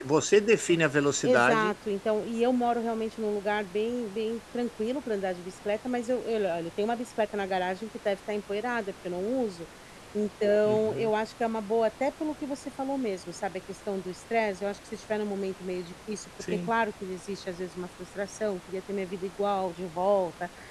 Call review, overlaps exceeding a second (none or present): none